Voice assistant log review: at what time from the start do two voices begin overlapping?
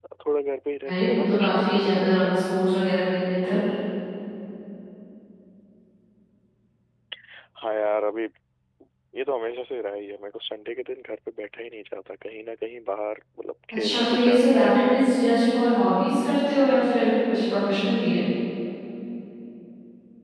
1 s

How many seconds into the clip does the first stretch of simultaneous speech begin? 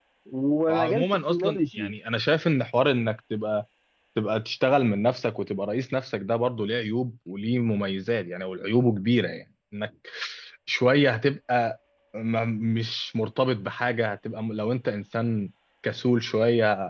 1 s

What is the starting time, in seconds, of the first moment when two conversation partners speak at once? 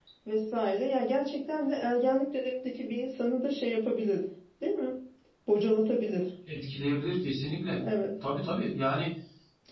none

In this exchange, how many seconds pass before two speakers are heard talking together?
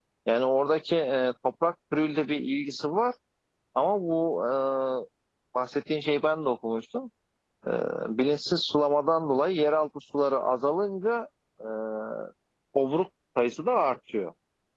none

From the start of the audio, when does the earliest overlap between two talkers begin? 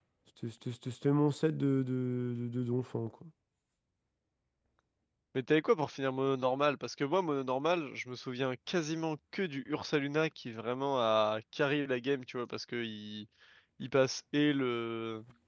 none

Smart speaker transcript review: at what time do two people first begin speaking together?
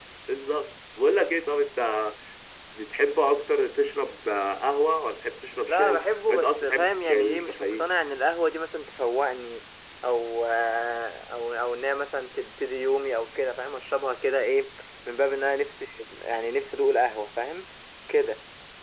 6 s

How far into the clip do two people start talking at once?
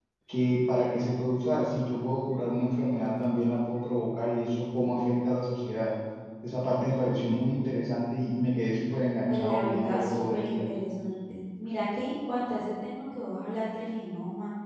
9 s

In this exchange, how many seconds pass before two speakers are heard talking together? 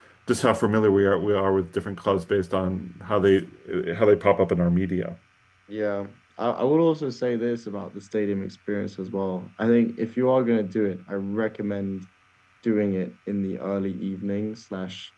none

